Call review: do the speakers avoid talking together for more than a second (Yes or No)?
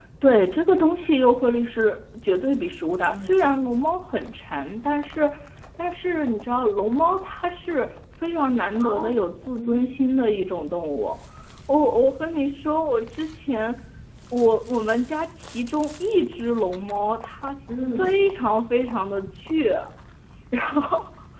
Yes